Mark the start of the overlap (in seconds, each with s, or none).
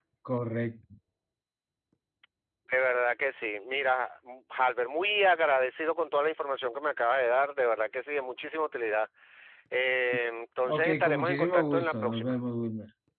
10.7 s